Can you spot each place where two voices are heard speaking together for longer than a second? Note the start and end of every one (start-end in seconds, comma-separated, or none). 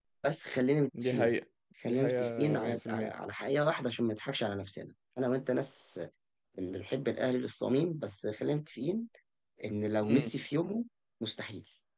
1.8-3.1